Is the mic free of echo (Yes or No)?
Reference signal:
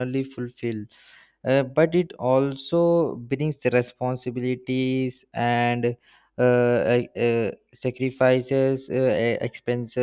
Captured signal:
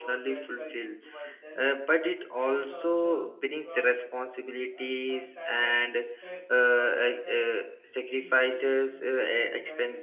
No